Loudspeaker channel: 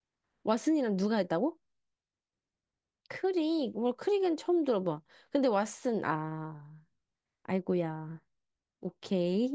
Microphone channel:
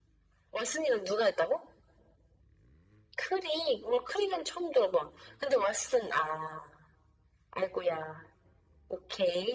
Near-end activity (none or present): none